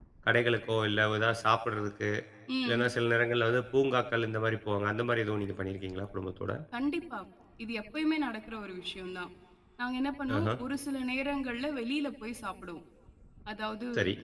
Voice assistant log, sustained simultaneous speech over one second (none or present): none